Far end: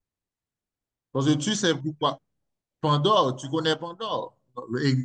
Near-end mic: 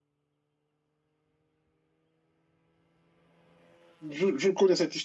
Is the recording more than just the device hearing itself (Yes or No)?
Yes